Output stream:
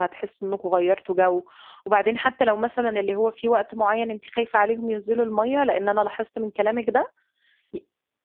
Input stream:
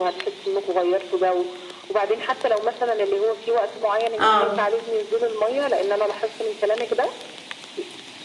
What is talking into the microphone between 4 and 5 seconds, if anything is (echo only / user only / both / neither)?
both